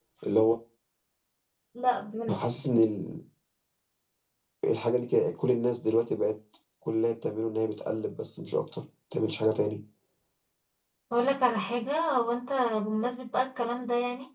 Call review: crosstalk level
none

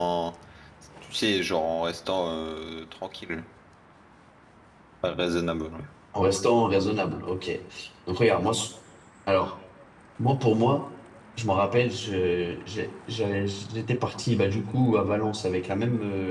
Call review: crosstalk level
none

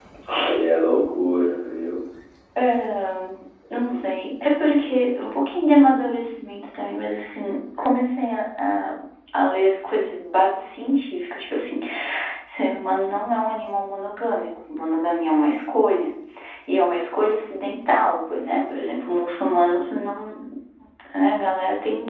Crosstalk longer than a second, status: none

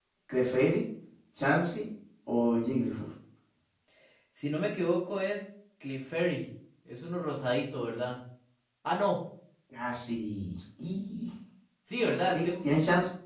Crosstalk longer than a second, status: none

